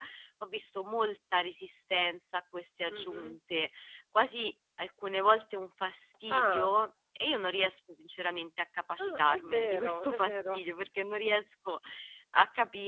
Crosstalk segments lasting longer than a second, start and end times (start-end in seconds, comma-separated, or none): 9.0-10.6